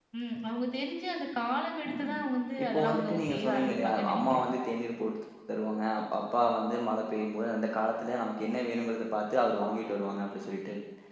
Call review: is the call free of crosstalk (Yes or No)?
No